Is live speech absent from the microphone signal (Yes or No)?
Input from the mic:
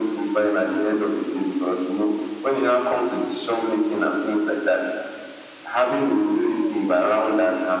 Yes